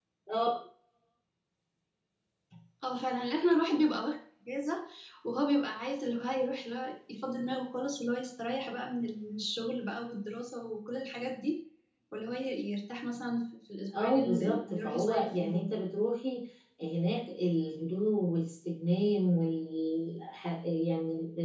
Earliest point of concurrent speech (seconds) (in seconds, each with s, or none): 13.9 s